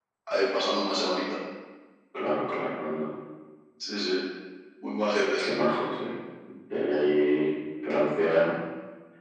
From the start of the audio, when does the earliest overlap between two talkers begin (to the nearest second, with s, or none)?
none